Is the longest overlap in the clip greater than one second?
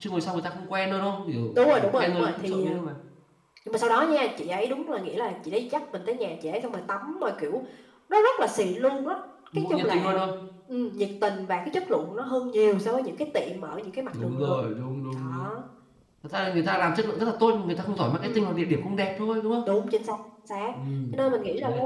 Yes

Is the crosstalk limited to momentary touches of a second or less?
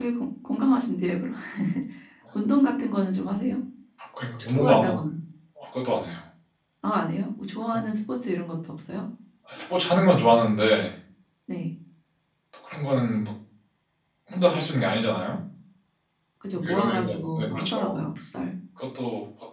No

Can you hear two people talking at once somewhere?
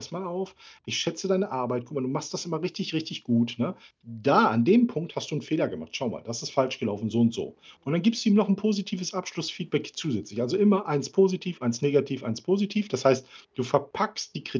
No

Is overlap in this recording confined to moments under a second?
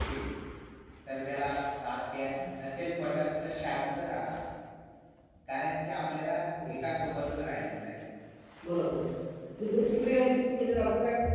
Yes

